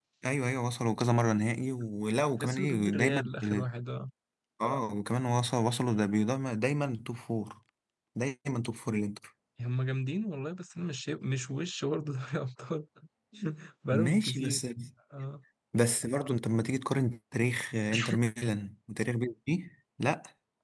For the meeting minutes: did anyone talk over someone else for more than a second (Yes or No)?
Yes